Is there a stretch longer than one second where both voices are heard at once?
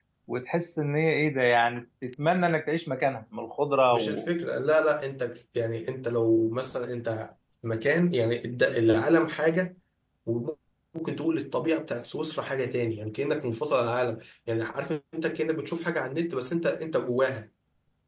No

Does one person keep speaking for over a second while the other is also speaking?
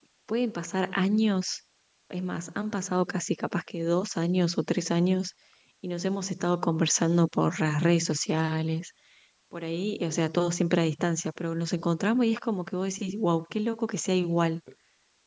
No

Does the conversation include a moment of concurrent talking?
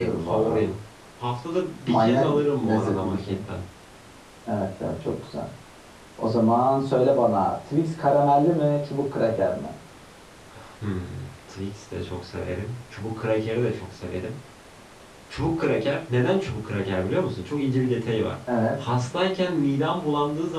Yes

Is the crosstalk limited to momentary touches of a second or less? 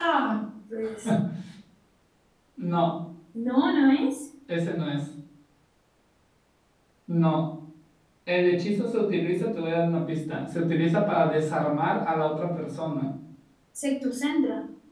Yes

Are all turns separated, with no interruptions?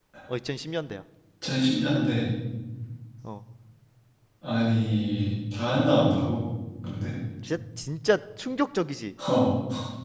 Yes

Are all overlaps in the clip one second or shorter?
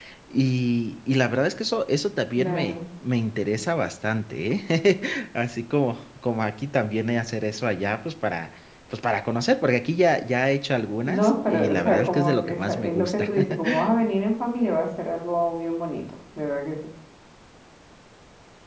No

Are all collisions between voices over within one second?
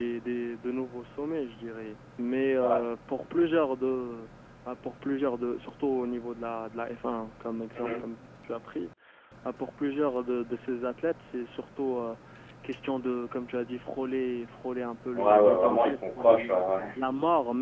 No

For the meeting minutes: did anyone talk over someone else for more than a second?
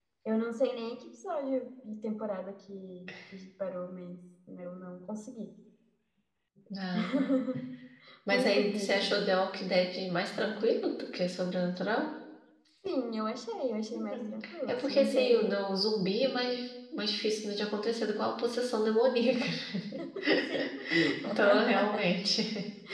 Yes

